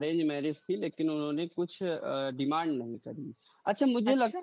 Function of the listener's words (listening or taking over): listening